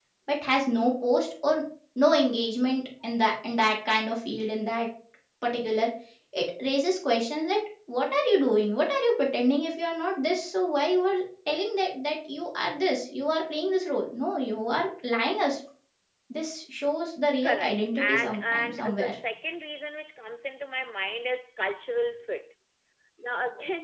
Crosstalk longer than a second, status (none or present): present